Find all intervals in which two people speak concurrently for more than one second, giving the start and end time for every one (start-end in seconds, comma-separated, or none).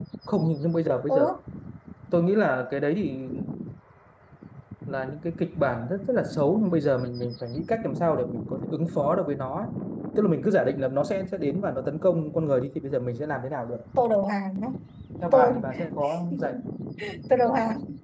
none